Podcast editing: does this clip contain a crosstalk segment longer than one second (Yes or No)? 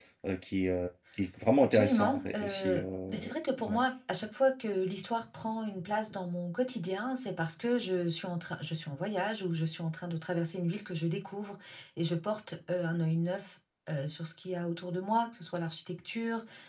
Yes